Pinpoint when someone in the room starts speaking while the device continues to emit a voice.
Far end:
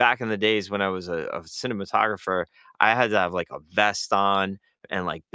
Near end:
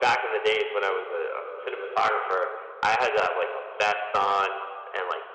none

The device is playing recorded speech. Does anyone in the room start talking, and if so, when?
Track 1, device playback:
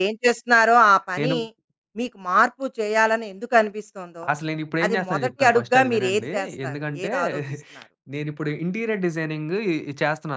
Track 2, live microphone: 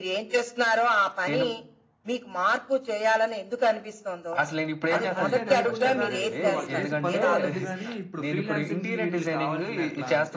4.9 s

